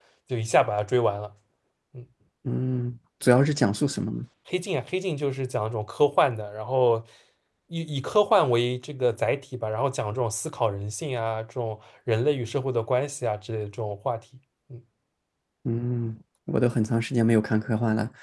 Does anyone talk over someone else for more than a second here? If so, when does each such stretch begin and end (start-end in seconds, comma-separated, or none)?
none